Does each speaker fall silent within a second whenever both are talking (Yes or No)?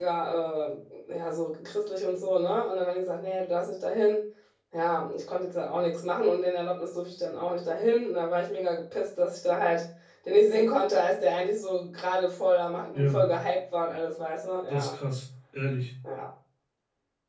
Yes